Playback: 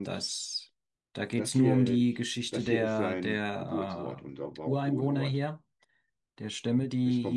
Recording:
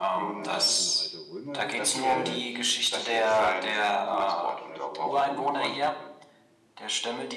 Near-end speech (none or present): present